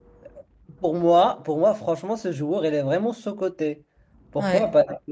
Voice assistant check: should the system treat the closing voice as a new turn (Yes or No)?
No